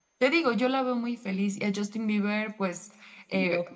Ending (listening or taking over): listening